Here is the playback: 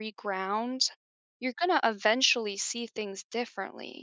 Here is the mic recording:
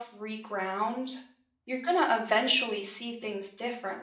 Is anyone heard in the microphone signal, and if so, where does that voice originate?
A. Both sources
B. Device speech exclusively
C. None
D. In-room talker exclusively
B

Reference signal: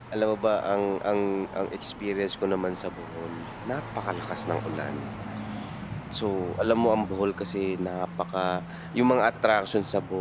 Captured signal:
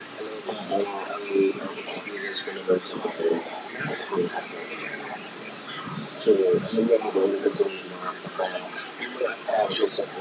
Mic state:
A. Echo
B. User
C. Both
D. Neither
A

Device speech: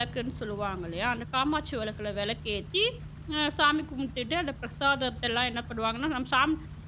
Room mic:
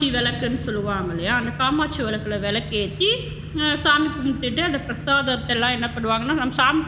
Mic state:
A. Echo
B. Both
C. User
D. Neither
A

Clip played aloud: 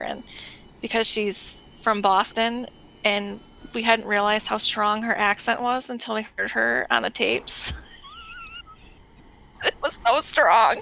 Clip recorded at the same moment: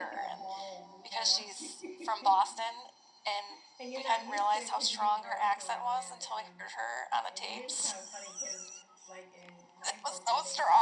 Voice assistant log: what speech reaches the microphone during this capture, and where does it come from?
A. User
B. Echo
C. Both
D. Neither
C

